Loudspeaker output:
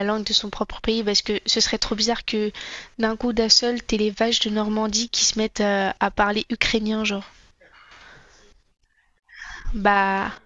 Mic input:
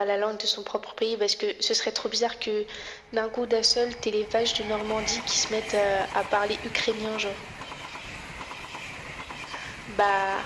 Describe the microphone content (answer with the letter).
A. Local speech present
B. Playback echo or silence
B